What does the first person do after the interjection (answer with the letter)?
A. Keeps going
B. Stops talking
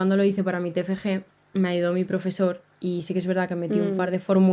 A